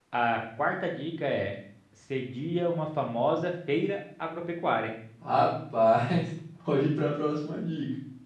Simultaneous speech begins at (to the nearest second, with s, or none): none